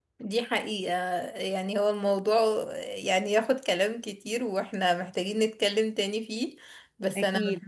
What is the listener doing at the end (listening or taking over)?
listening